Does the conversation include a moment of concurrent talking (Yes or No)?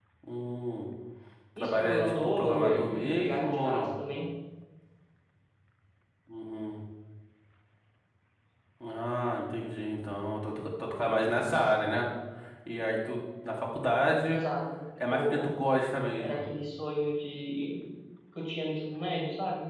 Yes